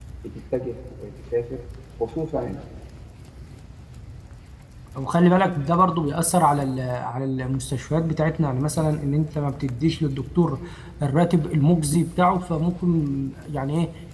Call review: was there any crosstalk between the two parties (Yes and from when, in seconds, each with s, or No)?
No